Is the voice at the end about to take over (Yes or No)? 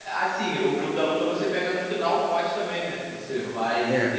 No